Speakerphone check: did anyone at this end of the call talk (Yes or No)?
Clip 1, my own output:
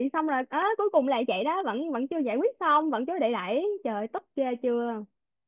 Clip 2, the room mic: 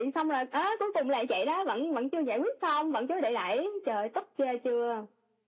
No